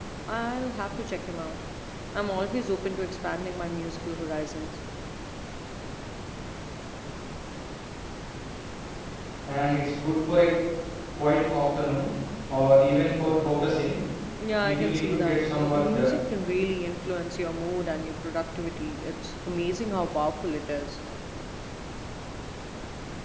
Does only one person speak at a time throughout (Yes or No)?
No